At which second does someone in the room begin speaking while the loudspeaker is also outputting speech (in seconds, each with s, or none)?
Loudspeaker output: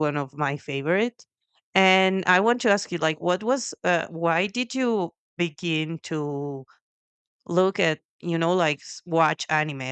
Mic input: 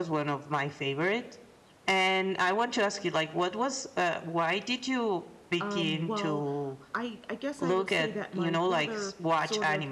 5.6 s